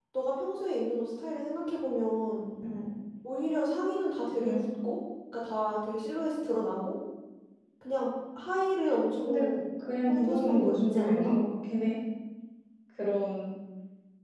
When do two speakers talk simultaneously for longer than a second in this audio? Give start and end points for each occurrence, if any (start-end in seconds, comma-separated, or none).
10.1-11.3